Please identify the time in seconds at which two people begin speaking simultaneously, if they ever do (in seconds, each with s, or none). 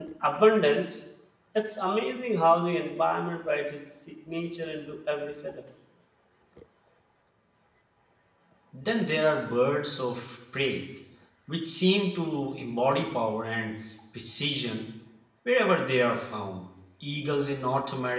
none